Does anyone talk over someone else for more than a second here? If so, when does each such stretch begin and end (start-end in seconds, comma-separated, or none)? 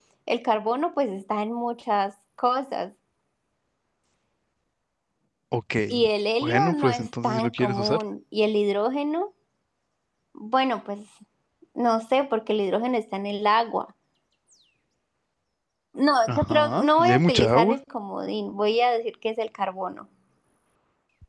6.4-8.0, 16.3-17.8